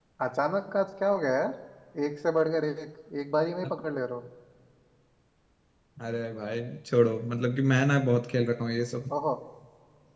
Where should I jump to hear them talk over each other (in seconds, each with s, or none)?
none